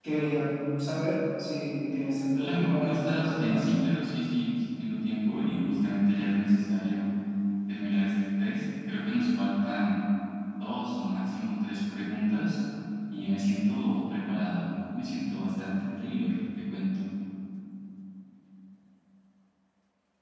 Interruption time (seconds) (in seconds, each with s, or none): 2.3 s